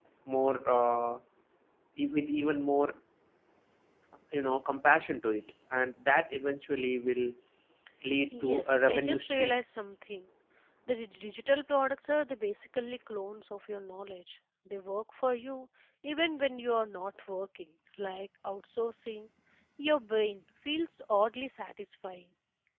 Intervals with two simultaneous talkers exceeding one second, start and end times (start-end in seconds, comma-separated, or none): 8.4-9.6